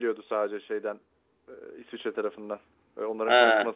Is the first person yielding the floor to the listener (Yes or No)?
No